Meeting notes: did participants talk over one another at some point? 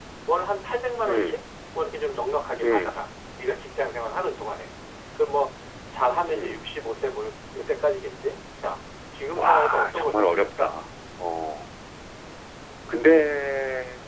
Yes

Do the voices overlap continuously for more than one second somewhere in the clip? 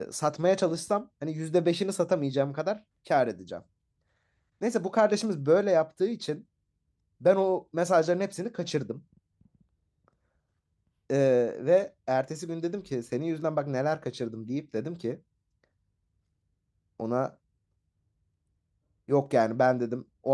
No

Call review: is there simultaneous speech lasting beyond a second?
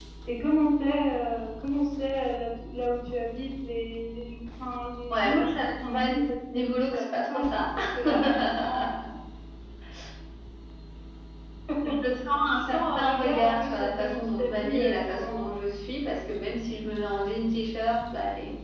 Yes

